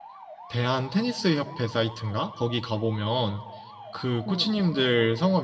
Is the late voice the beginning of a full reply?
No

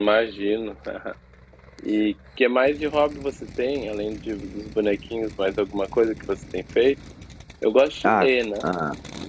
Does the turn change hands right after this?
Yes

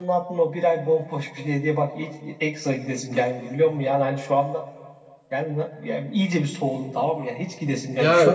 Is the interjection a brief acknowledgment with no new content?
No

